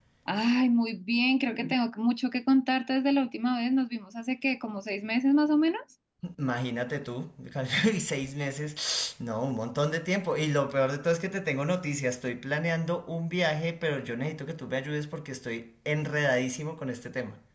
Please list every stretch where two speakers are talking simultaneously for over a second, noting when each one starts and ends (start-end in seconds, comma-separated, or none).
none